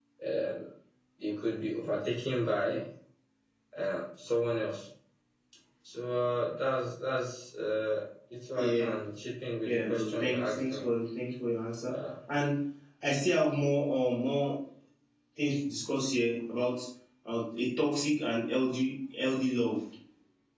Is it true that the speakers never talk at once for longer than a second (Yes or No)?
No